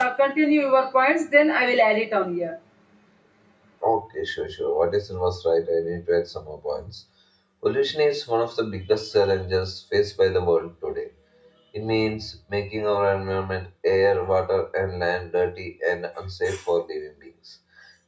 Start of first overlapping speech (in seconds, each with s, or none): none